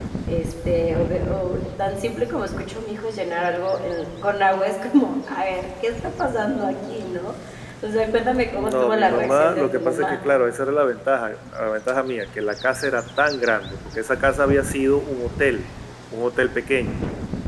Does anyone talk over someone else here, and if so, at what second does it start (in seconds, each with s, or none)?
8.5 s